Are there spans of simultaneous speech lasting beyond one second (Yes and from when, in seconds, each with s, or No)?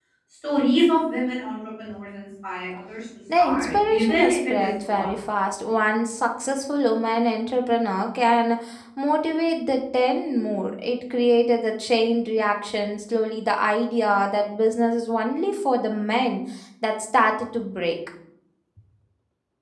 Yes, from 3.3 s